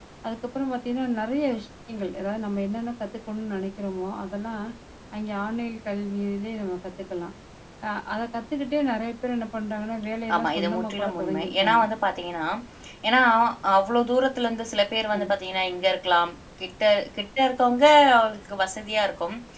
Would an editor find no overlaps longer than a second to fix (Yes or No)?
No